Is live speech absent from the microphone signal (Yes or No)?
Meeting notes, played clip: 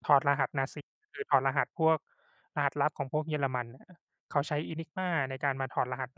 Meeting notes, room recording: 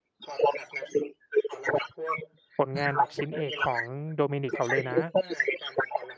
No